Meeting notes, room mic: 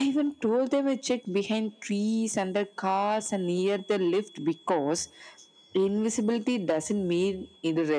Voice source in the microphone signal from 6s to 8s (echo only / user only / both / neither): echo only